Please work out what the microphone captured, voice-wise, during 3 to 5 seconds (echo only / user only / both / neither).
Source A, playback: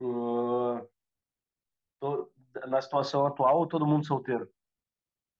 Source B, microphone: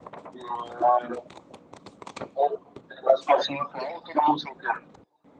echo only